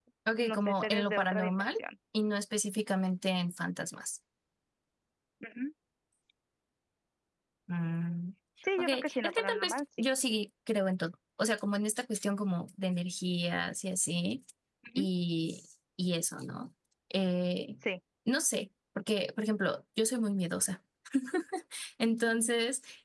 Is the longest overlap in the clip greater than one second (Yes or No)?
Yes